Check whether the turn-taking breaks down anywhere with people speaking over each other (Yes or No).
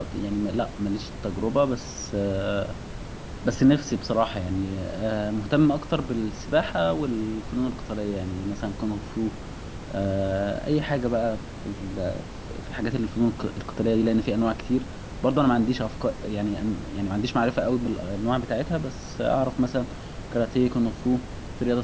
No